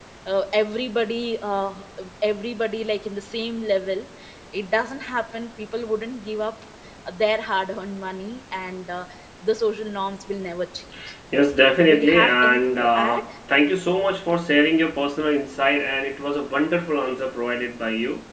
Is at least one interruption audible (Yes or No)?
Yes